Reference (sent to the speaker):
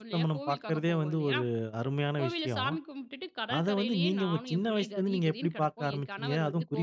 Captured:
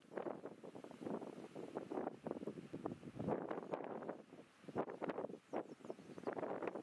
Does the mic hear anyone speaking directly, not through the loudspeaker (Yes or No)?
No